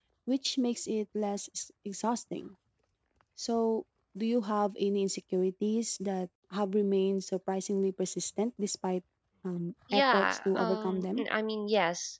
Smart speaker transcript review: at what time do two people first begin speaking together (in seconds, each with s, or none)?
9.9 s